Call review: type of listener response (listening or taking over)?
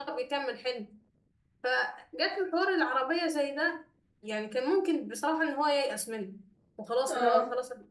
listening